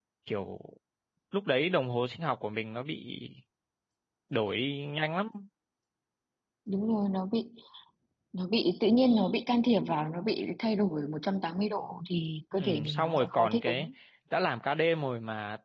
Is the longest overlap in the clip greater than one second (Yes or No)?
Yes